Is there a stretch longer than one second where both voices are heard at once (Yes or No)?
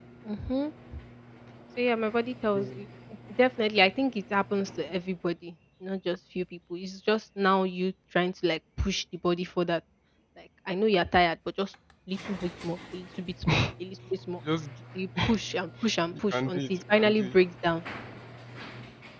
Yes